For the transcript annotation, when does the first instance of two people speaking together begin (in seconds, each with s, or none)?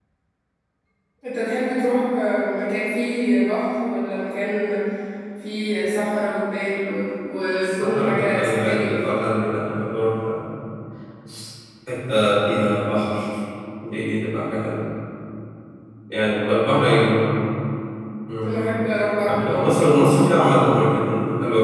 7.5 s